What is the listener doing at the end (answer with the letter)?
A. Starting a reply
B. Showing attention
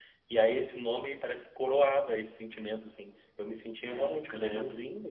B